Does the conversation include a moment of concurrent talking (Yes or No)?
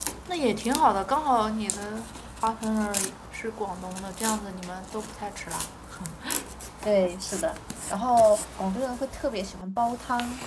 No